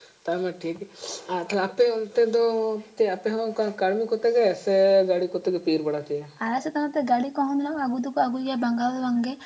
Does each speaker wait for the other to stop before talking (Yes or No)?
Yes